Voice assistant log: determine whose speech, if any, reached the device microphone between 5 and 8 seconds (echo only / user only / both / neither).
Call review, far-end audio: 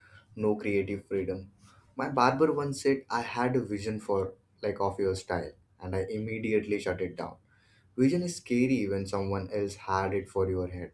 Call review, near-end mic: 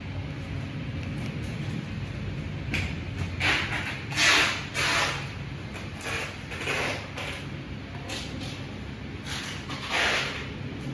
neither